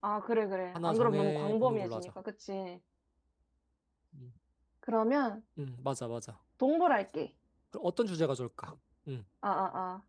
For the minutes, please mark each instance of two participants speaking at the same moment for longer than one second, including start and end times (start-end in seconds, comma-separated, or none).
0.7-2.1